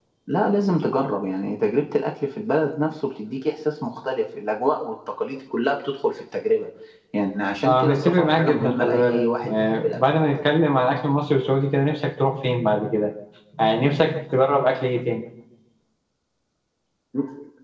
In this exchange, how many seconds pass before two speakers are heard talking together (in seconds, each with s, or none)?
7.6 s